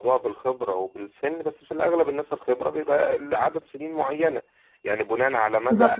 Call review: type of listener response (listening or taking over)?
taking over